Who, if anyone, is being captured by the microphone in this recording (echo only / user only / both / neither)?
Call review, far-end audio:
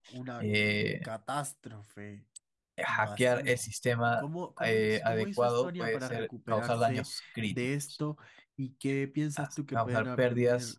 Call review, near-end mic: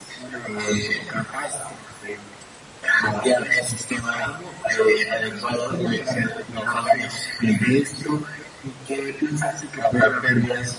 echo only